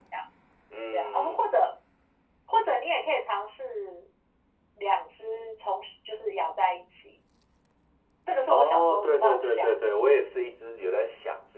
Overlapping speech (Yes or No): Yes